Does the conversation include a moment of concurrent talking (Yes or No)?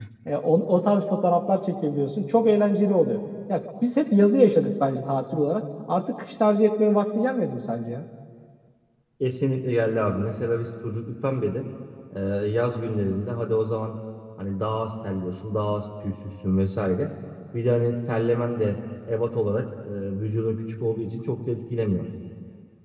No